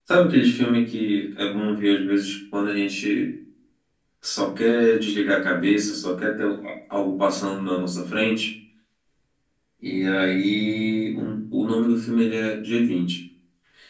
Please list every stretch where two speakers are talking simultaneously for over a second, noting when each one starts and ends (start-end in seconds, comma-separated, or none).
none